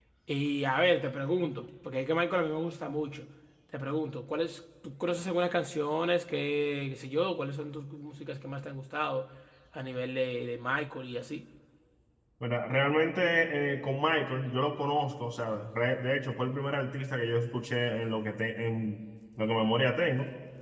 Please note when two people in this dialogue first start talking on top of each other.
none

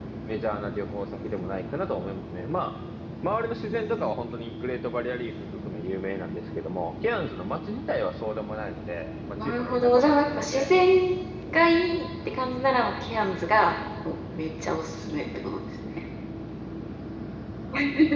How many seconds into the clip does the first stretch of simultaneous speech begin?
9.4 s

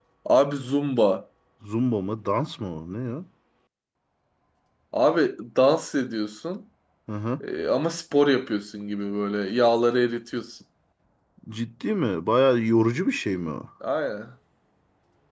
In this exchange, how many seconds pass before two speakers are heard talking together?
none

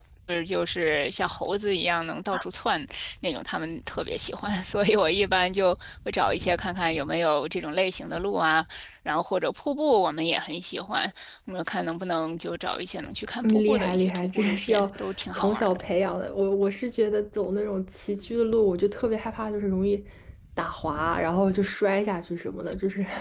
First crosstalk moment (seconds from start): 13.4 s

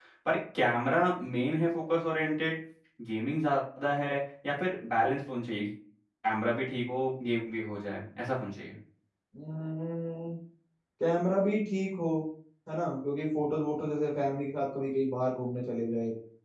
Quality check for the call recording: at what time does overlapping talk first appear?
none

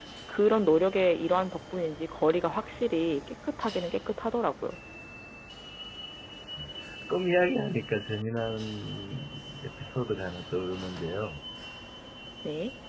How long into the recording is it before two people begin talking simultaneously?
none

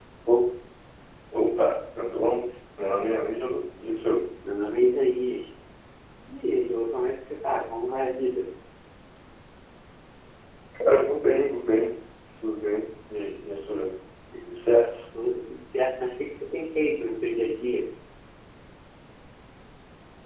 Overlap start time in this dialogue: none

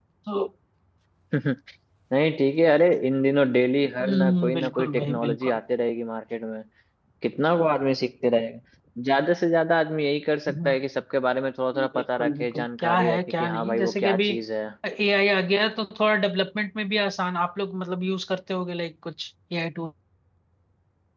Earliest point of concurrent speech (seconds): 4.0 s

